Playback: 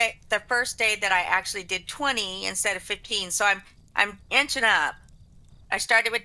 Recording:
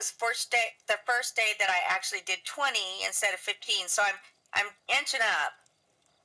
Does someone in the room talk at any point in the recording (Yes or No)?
No